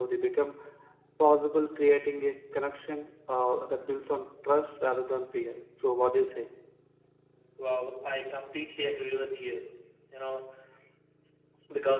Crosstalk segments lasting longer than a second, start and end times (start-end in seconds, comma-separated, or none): none